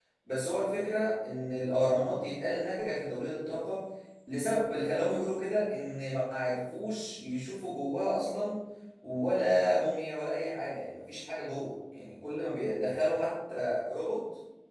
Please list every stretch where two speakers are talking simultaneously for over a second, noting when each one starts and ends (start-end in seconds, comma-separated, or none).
none